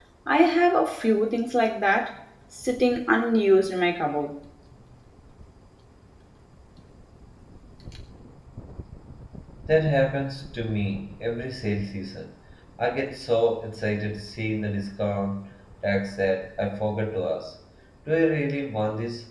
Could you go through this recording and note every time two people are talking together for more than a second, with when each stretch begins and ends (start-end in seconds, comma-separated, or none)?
none